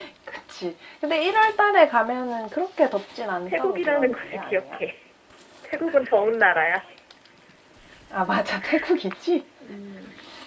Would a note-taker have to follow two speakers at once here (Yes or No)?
Yes